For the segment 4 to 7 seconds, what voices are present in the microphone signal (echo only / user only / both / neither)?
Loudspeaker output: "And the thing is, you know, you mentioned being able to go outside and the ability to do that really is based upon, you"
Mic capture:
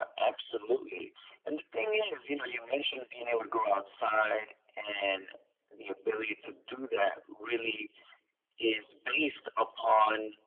echo only